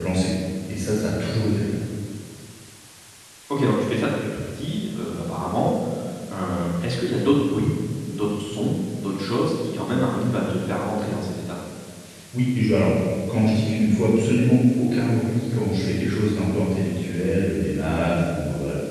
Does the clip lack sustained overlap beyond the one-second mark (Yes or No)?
Yes